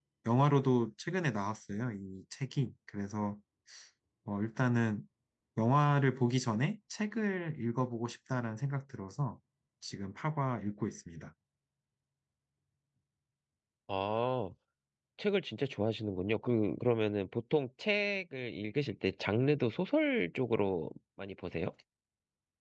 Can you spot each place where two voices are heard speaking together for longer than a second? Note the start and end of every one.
none

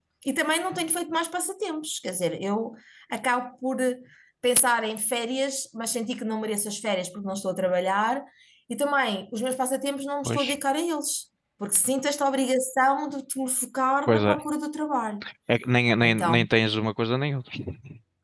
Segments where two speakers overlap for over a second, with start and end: none

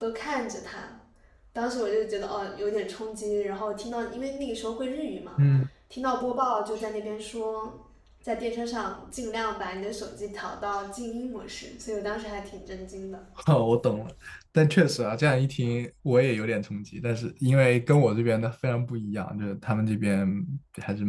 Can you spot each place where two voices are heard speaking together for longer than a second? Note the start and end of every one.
none

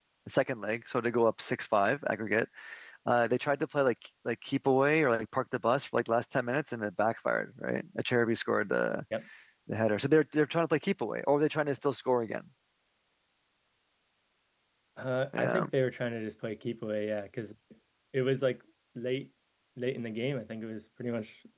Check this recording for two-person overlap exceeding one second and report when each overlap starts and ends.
none

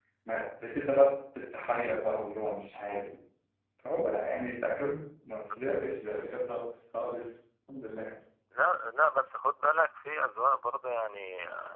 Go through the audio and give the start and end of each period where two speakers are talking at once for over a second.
none

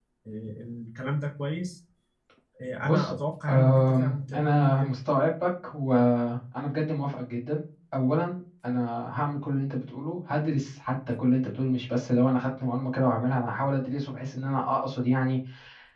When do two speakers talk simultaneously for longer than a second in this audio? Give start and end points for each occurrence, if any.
3.5-4.7

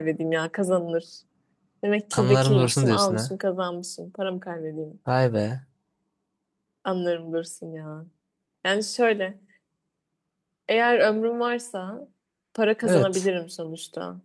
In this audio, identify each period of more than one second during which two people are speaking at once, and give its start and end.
2.1-3.3

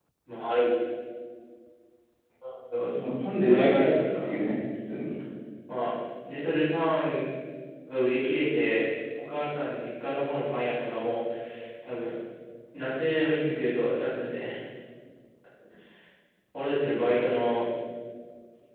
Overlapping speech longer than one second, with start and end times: 3.0-4.4

